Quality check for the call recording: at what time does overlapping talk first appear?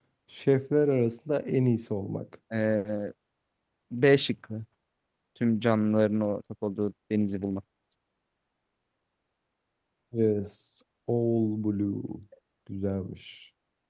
none

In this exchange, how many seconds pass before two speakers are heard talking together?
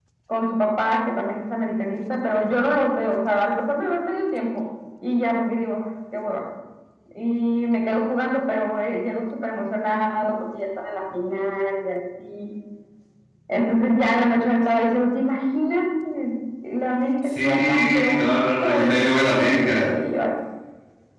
17.4 s

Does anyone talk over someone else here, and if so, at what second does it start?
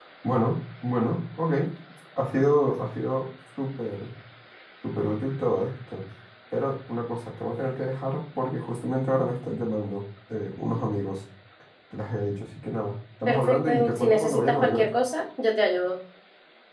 13.3 s

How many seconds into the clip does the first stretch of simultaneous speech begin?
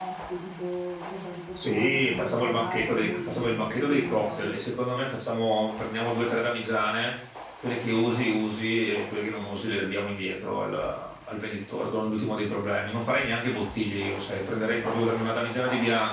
1.6 s

